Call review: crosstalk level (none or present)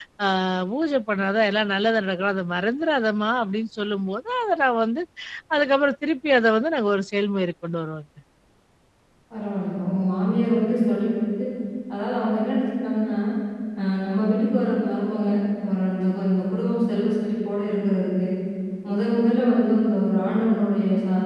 none